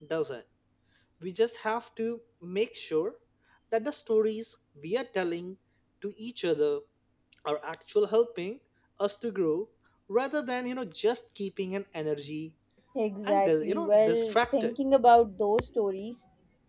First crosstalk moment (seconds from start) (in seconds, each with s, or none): 13.2 s